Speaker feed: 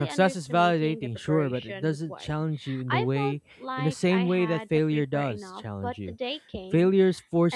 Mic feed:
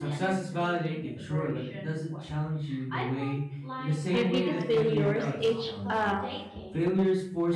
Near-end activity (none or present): present